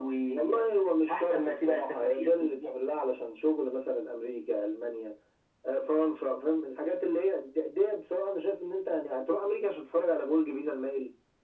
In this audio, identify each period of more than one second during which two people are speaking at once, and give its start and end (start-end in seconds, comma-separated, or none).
1.1-2.7